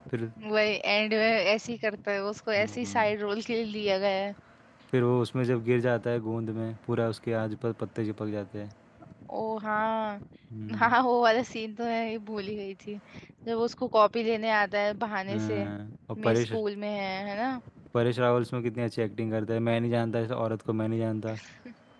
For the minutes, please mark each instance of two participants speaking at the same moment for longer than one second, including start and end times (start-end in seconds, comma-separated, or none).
none